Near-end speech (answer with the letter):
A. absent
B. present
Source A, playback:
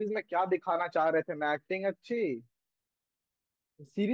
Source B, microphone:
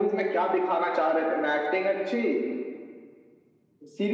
A